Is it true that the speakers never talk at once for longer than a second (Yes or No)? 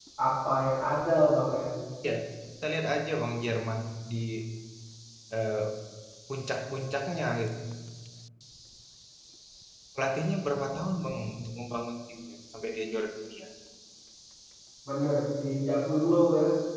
Yes